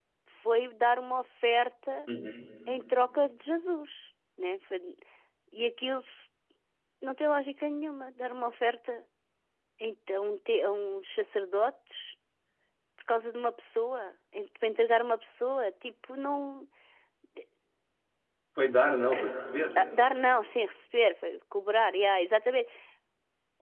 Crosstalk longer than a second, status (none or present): none